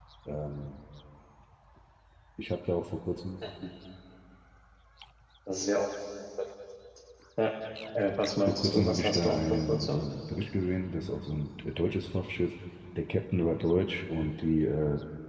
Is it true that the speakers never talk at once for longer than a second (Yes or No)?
No